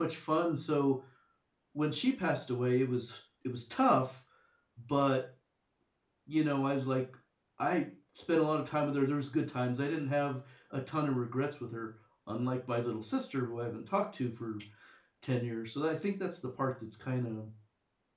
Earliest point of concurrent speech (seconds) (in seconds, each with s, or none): none